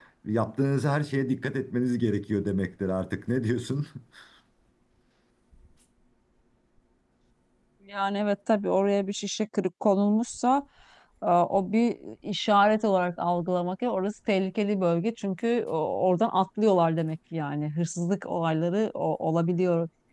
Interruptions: none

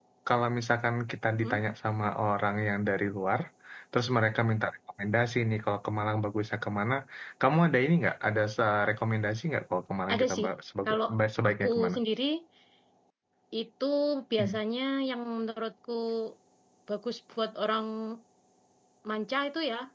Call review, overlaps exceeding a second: none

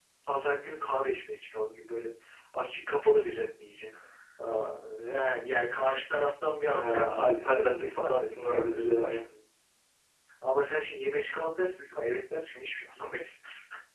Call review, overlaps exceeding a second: present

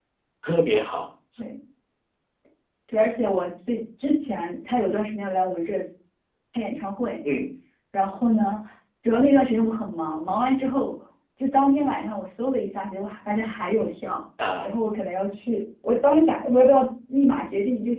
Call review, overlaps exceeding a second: none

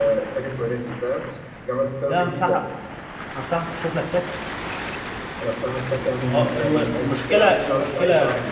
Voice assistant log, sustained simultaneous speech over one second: present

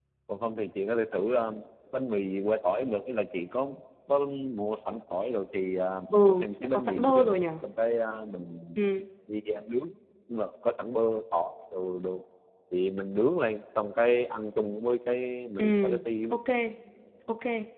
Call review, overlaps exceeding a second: present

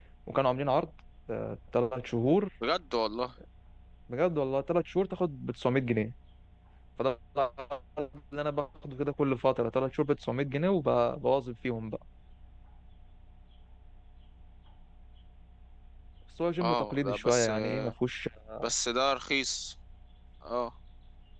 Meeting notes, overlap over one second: present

